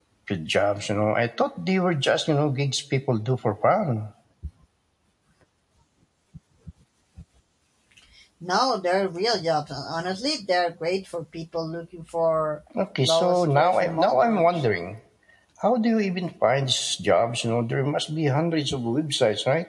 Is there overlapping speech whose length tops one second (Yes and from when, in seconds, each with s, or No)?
Yes, from 13.0 s